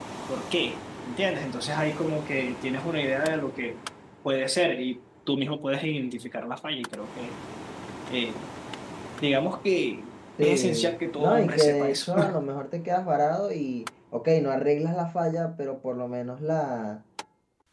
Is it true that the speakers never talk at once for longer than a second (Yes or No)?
No